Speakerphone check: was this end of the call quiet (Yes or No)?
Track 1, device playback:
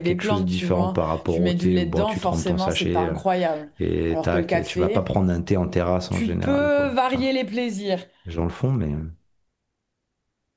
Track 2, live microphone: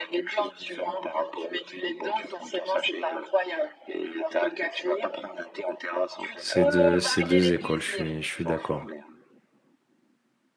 No